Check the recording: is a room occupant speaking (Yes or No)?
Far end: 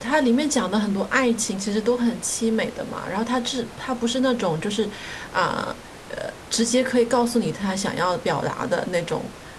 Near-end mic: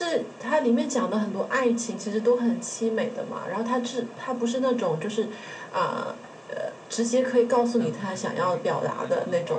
Yes